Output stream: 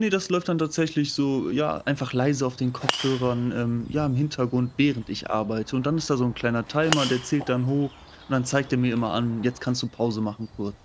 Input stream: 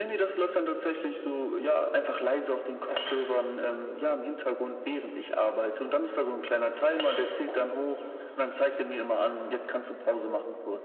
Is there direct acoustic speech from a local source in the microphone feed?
No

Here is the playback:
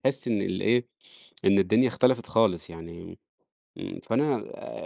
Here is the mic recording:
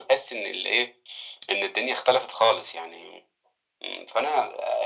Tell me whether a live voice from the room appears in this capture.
No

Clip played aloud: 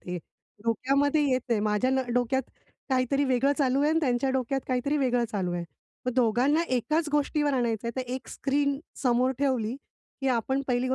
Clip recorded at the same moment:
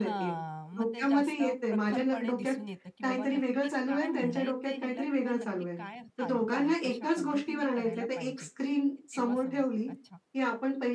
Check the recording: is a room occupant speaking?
Yes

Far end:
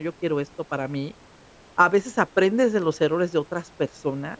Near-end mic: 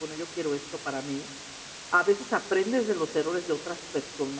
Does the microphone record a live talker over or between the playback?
No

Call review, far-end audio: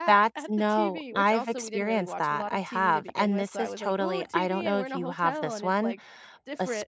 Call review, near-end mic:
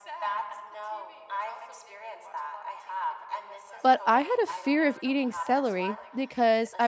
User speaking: Yes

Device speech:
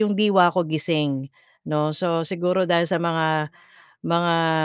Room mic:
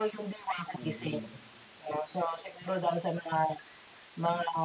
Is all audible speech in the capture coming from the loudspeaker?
No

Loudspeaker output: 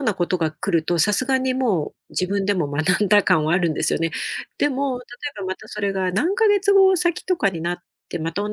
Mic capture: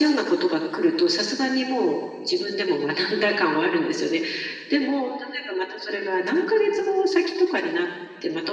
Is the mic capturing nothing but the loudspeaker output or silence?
Yes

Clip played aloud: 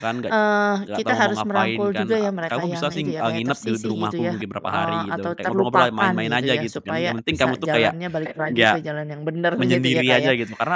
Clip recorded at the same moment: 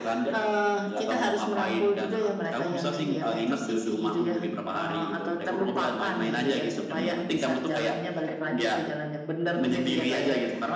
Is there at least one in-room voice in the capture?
Yes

